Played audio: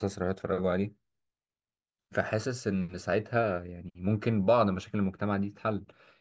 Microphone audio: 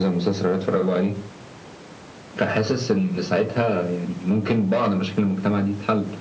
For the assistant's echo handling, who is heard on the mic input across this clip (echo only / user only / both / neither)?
echo only